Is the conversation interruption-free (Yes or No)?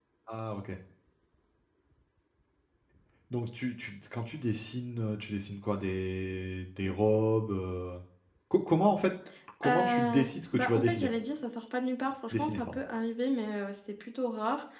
No